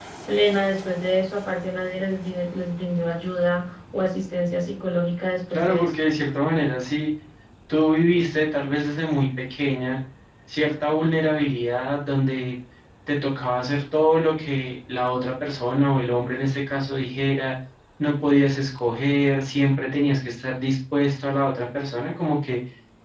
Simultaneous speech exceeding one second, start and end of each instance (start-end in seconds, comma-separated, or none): none